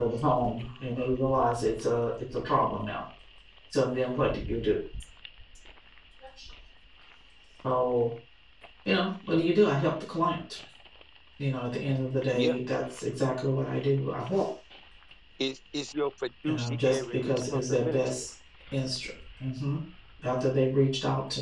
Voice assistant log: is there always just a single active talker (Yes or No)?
No